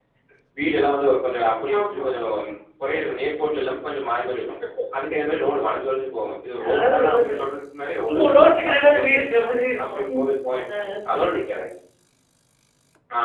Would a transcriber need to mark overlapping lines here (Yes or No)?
Yes